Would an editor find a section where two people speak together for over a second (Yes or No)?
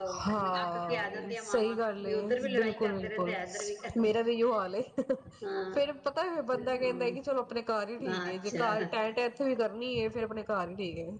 Yes